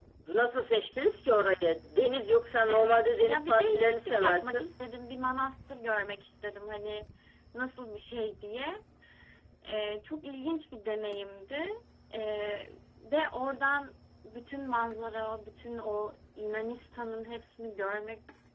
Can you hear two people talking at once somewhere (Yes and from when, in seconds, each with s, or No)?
Yes, from 2.7 s